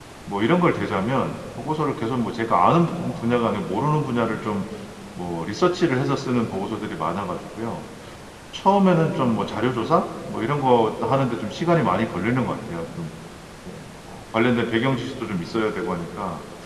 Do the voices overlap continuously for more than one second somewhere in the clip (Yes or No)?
No